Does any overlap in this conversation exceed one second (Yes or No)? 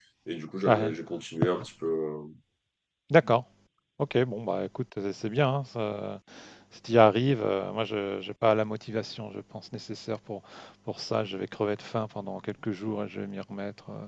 No